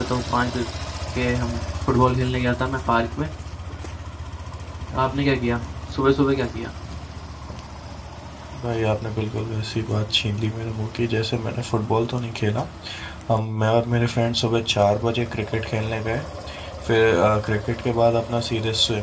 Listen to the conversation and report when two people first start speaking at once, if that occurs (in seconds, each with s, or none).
none